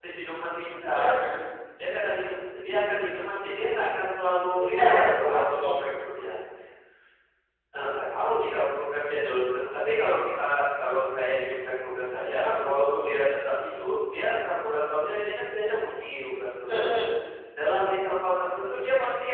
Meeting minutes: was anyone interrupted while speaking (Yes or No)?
Yes